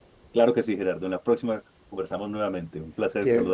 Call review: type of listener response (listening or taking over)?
taking over